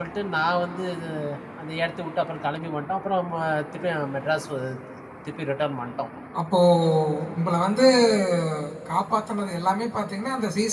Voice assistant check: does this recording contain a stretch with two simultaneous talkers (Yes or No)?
No